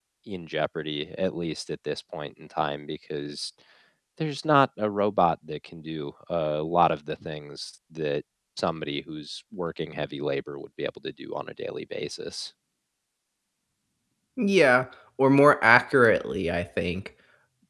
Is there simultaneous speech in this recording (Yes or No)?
No